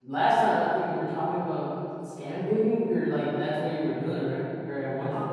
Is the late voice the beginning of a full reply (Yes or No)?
Yes